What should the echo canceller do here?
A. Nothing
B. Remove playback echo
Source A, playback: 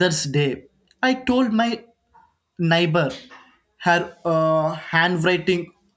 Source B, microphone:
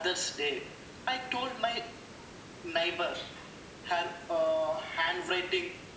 B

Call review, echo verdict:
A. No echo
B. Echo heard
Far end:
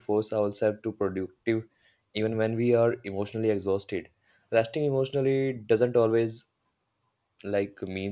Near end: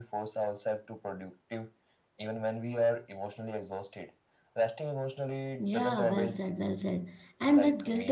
B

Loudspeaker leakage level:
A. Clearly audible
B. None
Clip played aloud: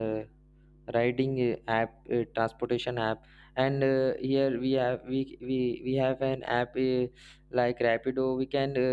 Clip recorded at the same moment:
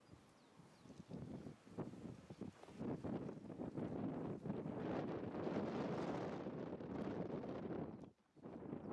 B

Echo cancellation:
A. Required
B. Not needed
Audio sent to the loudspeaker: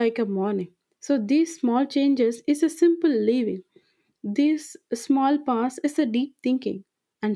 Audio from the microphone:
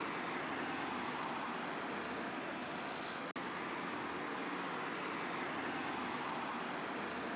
B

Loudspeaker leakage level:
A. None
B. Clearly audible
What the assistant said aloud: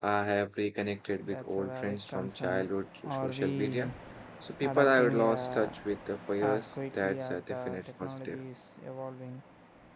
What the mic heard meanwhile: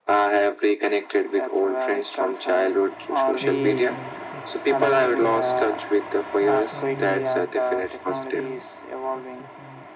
B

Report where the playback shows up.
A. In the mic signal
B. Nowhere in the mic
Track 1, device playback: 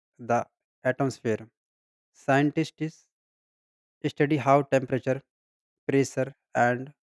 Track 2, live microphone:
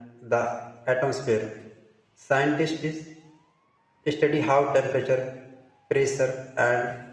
A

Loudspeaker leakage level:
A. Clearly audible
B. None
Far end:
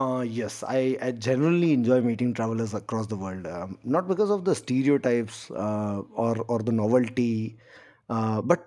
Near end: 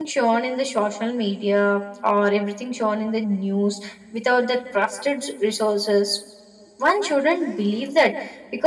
B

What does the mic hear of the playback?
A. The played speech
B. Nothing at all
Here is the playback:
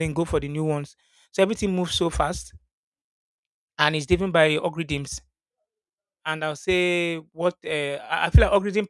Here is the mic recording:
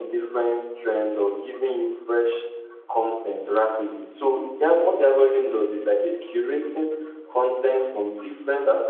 B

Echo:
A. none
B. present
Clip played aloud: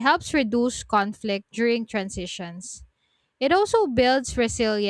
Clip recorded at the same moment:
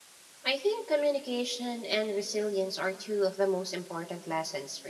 A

